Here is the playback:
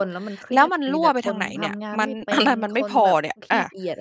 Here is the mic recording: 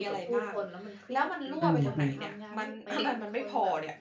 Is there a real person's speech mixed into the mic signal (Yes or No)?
Yes